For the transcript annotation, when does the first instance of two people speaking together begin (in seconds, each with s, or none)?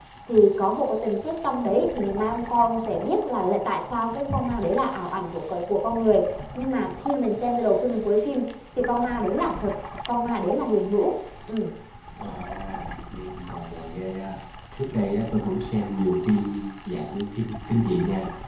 none